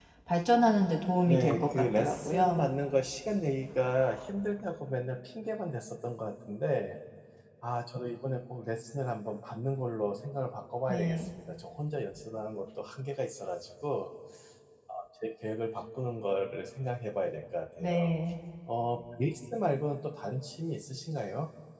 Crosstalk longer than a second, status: present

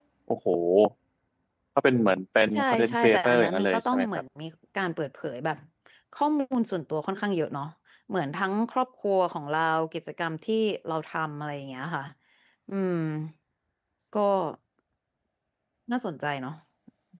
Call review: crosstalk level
present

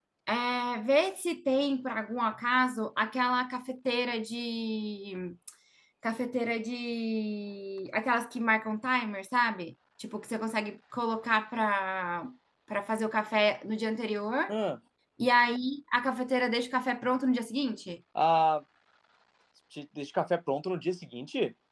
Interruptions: none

